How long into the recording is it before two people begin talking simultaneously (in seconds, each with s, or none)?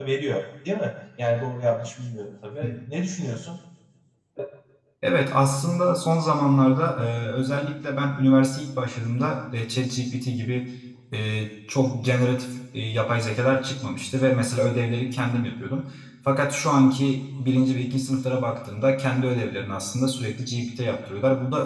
none